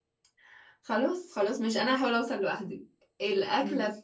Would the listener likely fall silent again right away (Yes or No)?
Yes